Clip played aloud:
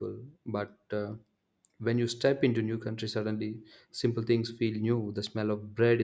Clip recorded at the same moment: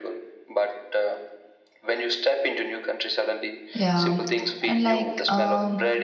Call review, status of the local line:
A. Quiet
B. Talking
B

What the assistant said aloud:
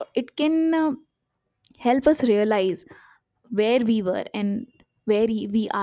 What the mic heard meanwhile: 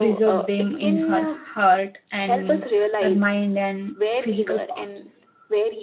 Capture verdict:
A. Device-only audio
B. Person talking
B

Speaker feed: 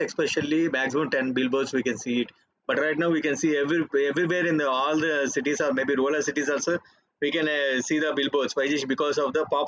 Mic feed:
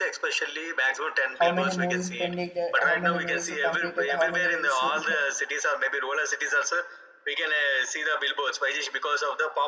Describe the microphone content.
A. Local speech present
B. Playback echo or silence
A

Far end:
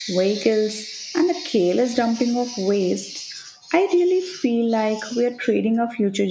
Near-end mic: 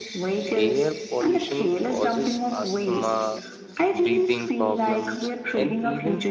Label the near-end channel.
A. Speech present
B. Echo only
A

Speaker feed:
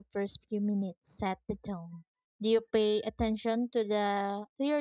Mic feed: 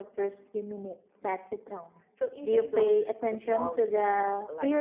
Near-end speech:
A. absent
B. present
B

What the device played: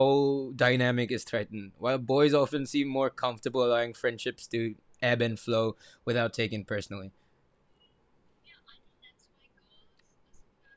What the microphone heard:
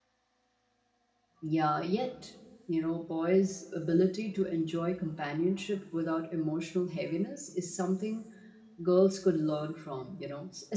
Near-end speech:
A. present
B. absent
A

